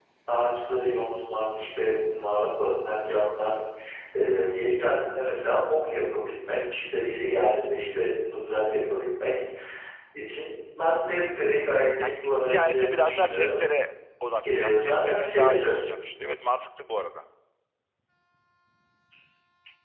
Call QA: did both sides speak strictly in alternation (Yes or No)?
No